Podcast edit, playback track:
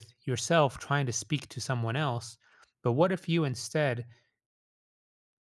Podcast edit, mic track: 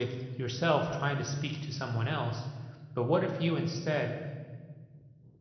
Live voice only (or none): none